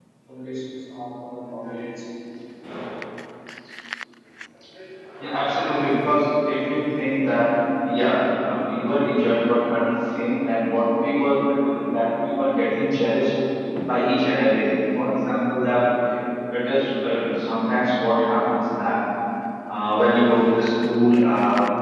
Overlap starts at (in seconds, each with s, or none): none